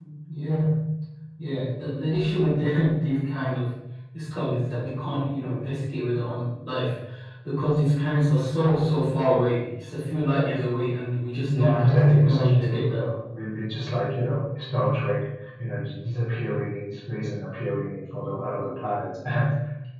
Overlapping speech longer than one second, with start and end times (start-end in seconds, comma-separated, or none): 11.5-13.0